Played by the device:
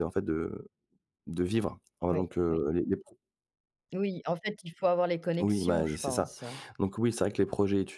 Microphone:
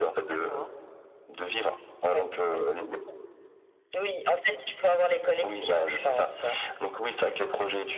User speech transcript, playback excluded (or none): D'accord.